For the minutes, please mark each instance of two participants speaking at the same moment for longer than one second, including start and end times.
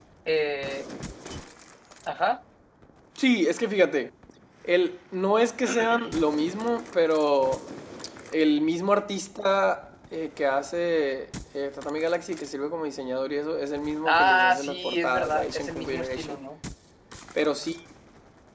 14.0-16.4

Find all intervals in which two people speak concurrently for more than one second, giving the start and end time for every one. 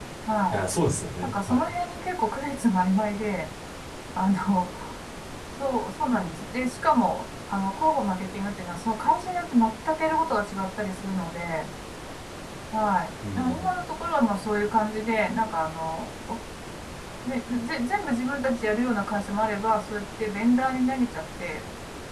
none

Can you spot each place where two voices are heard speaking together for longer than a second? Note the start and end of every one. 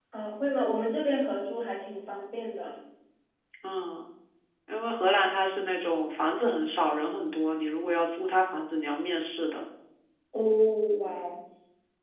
none

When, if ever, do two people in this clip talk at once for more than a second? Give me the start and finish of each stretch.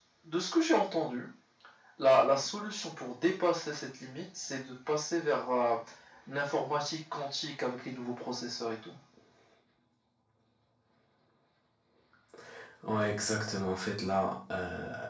none

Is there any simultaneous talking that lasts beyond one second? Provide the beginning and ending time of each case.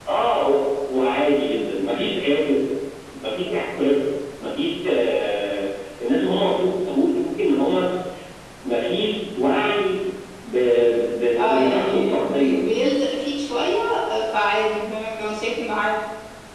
11.4-12.6

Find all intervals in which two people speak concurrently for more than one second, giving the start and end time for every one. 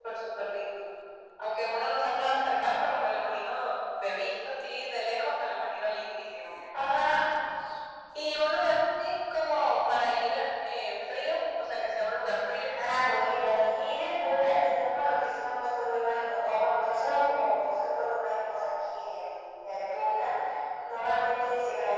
none

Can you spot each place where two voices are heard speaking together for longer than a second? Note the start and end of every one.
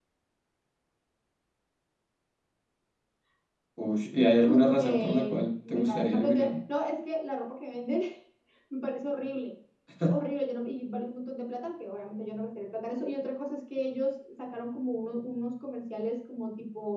4.5-6.6

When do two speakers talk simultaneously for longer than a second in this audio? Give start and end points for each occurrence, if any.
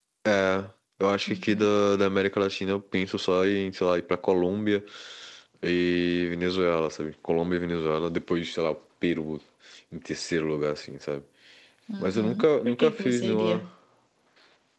12.0-13.6

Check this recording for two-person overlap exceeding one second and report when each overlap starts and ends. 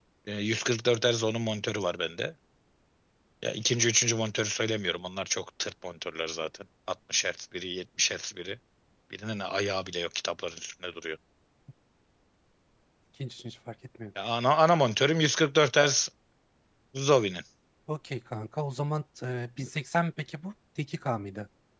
none

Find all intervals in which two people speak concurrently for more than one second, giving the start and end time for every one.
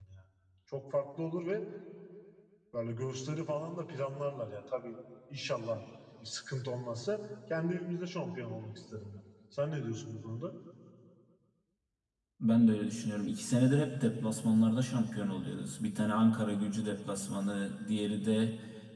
none

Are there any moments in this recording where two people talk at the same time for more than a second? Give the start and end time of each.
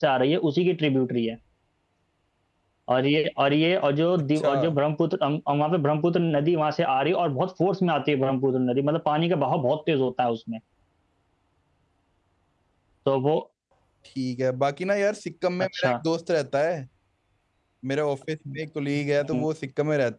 none

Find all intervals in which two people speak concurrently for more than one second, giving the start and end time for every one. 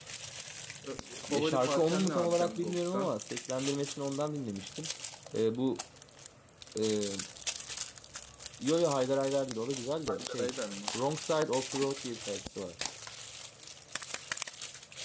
1.3-3.1

